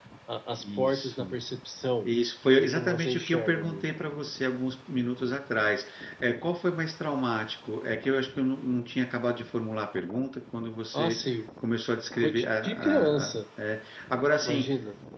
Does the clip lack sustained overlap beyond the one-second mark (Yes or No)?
No